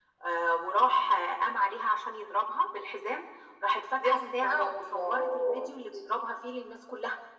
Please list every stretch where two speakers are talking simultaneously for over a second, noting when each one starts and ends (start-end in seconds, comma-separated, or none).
4.0-5.7